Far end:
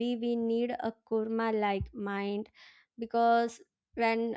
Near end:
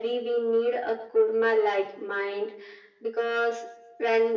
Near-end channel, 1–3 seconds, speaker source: echo only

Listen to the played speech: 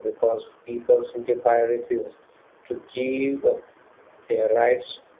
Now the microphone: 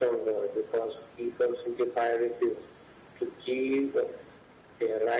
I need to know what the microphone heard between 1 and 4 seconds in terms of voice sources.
echo only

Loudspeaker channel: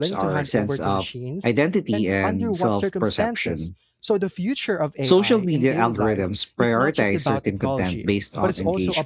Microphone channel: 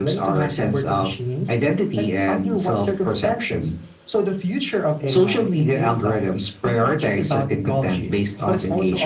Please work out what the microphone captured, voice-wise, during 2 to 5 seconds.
echo only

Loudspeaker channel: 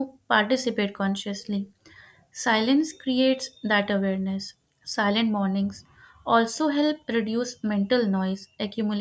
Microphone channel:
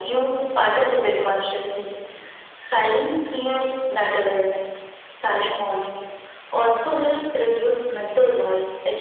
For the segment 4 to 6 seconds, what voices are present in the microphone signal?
echo only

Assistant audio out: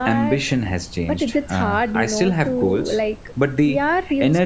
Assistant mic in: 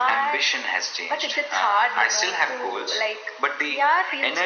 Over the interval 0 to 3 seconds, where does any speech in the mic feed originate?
echo only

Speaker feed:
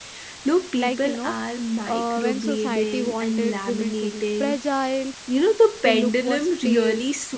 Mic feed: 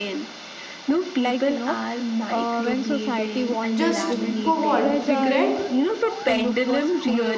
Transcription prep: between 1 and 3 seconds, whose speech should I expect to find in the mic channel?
echo only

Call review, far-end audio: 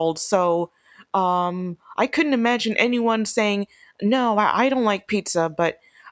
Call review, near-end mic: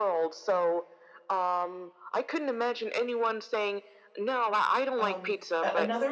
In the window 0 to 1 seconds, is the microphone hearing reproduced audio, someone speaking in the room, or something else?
echo only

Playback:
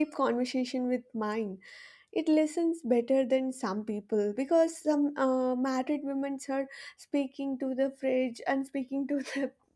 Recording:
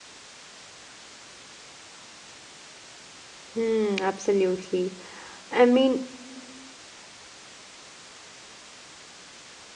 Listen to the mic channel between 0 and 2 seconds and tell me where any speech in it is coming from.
neither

